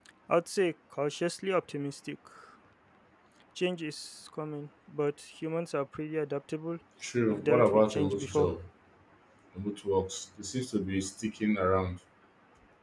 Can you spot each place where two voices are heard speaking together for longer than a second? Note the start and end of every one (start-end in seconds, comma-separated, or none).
7.3-8.6